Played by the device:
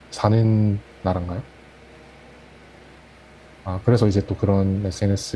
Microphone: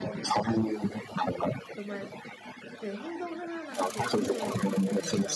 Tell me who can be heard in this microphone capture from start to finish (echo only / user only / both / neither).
both